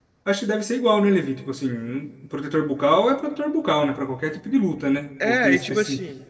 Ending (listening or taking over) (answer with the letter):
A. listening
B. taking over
B